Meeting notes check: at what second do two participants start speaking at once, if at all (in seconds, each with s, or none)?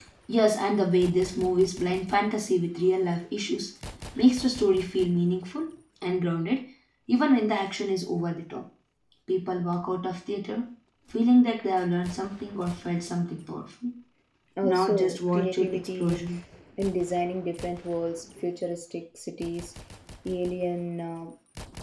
14.6 s